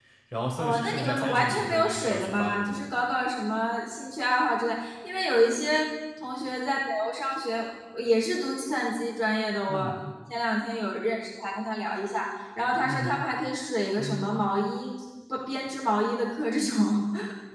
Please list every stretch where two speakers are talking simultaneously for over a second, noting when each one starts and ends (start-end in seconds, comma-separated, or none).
0.6-2.9